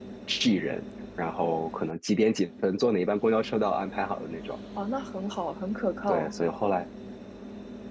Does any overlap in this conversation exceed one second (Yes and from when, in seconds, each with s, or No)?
No